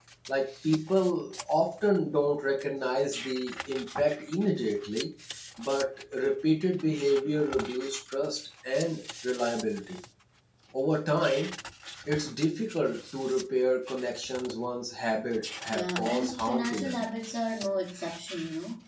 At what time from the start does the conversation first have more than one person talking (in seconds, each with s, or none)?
15.7 s